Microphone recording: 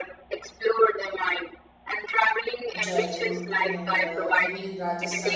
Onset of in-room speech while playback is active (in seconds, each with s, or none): 2.8 s